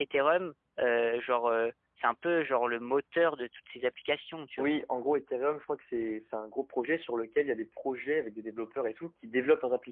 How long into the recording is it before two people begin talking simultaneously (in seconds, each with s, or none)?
none